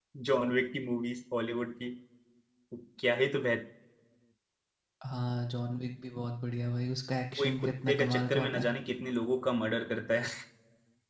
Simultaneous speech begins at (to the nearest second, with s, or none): 7 s